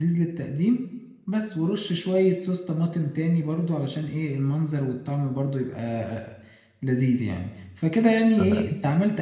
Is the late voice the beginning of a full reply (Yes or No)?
No